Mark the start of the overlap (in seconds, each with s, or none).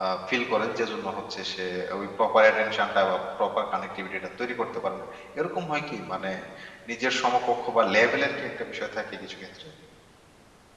none